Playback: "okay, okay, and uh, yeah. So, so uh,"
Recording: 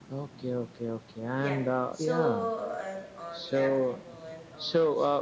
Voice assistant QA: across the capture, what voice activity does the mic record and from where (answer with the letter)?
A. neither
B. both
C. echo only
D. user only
B